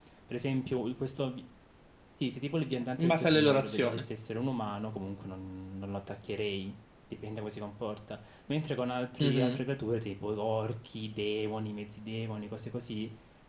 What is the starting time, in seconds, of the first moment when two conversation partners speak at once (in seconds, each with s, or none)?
2.7 s